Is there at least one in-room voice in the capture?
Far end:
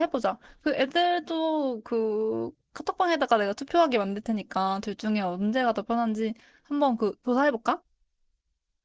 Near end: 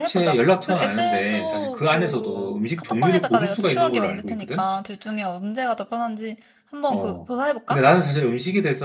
Yes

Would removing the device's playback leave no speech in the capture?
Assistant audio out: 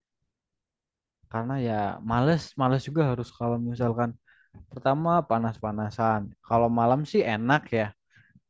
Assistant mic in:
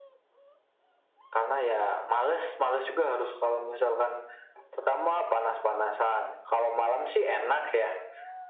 Yes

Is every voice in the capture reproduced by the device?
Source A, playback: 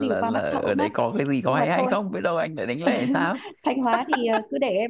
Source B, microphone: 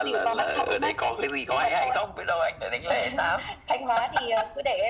Yes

